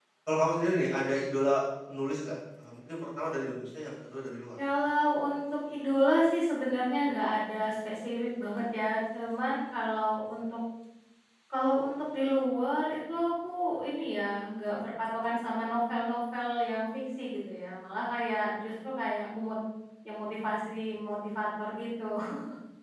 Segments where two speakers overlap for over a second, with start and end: none

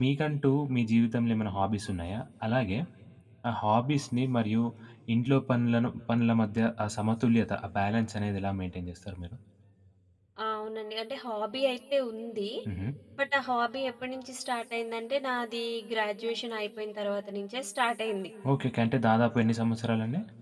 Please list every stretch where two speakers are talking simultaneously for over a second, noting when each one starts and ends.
none

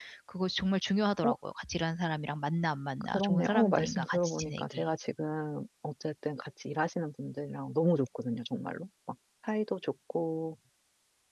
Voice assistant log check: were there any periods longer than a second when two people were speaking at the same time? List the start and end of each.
3.1-4.8

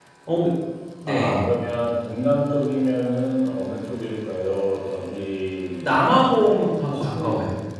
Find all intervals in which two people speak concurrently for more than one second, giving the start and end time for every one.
none

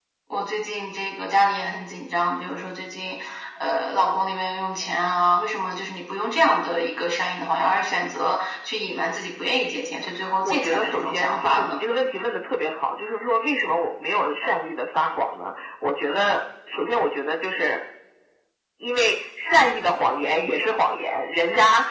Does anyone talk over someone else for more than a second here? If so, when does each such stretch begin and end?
10.4-11.8

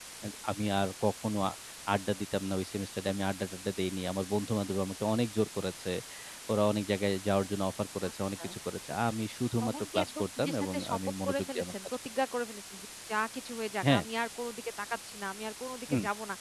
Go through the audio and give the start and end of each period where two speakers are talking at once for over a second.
9.6-11.9

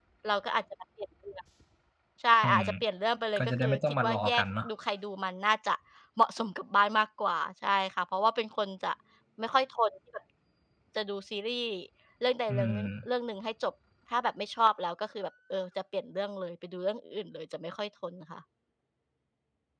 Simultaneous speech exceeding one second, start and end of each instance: 3.4-4.6

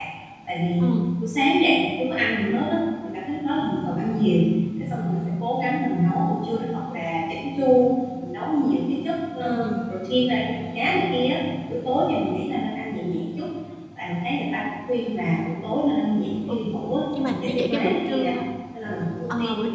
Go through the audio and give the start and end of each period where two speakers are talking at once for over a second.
17.1-18.3

